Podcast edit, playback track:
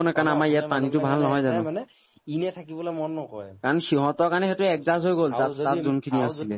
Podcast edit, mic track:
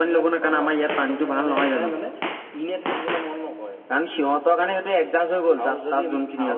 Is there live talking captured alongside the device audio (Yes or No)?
No